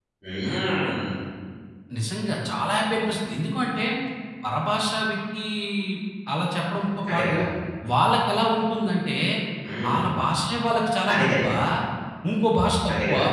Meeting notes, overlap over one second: none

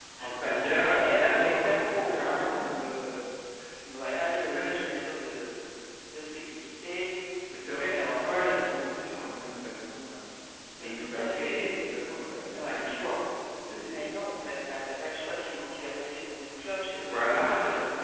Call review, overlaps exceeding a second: present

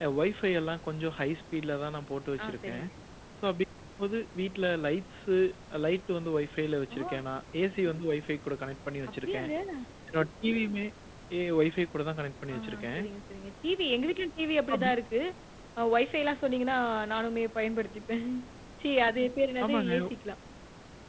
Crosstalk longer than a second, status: none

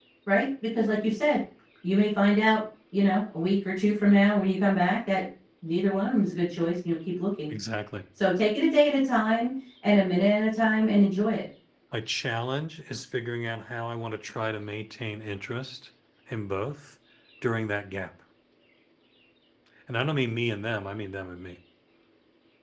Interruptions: none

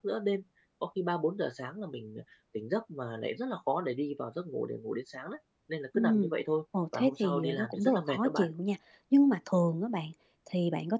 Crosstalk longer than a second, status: present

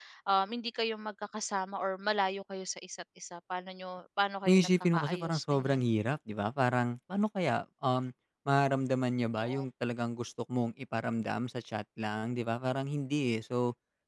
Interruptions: present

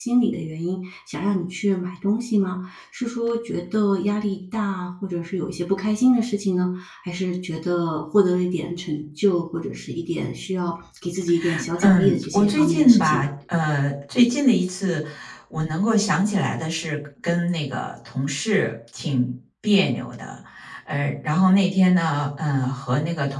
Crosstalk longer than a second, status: present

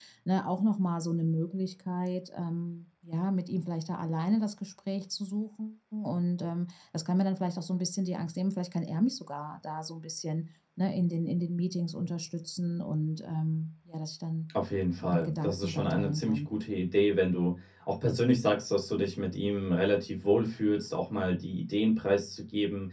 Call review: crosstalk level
present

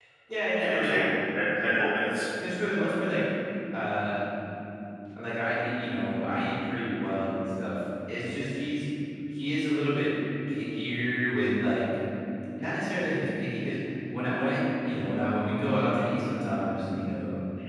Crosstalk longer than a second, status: none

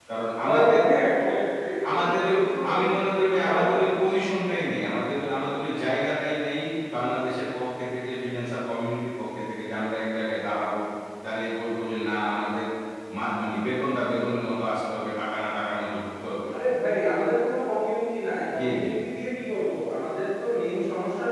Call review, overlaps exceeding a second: none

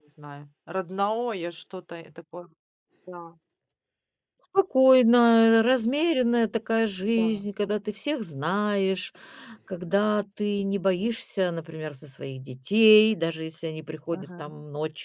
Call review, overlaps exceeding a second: none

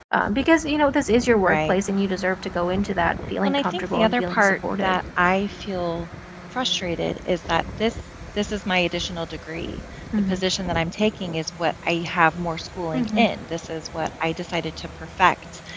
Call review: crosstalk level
present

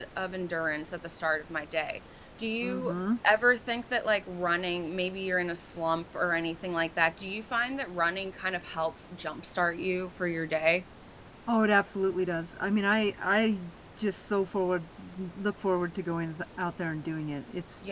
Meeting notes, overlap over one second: none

